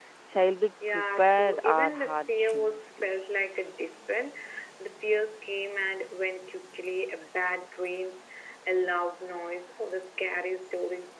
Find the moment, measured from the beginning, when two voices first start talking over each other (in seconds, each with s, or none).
0.9 s